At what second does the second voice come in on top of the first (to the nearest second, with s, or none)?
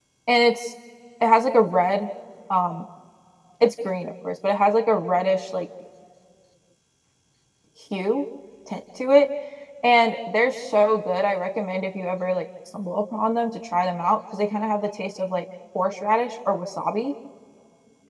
none